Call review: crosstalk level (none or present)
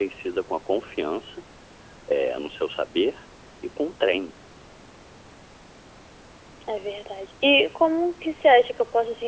none